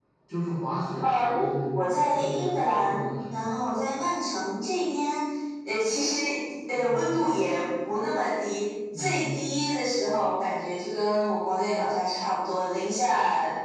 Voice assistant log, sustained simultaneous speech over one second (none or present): present